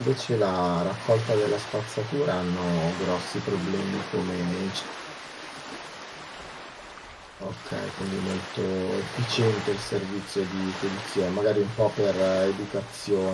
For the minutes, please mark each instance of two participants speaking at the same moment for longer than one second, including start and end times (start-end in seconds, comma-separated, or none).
3.5-4.8